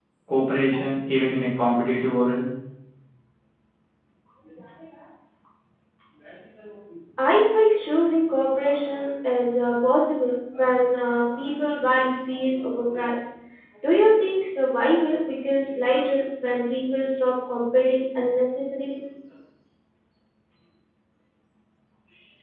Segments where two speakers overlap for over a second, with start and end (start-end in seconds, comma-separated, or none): none